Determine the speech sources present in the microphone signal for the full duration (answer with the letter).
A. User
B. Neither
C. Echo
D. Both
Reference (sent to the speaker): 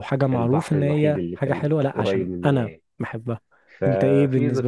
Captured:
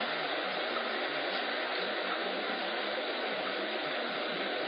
B